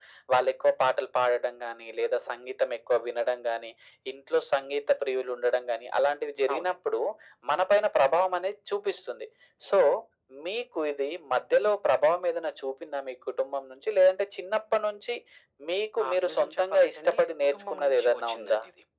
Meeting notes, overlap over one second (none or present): present